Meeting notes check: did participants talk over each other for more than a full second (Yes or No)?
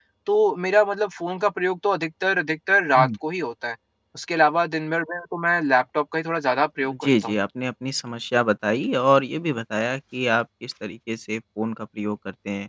No